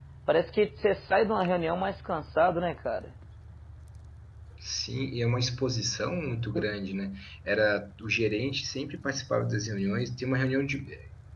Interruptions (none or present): none